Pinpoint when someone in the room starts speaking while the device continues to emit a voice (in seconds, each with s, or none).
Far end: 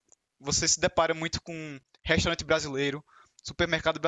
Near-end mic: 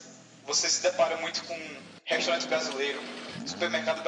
none